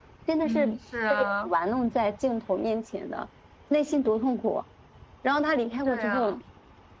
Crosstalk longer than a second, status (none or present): none